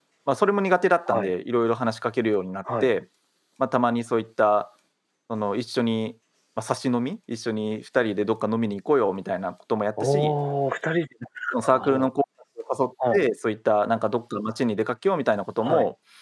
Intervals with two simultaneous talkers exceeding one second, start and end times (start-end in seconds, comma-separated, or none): none